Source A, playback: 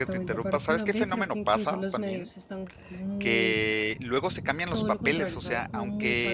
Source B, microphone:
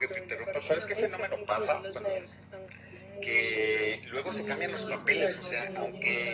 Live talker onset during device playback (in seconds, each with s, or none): 4.2 s